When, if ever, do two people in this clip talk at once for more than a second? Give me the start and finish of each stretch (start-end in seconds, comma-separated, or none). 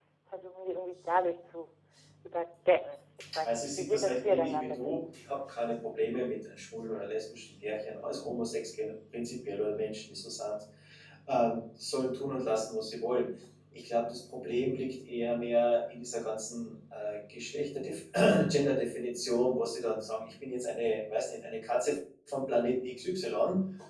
3.4-4.9